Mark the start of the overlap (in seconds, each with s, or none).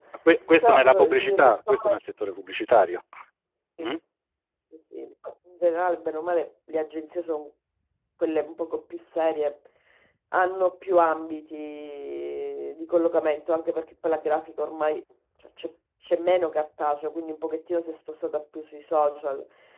0.6 s